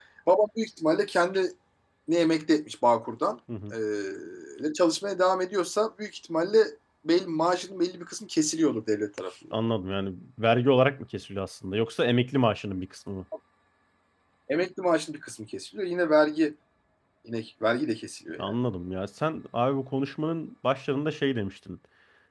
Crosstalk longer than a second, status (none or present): none